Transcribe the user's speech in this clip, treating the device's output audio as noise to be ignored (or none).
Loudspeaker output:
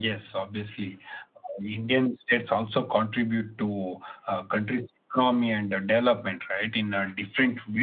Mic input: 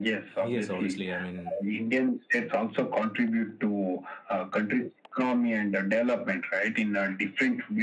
Yes, obviously. I mean,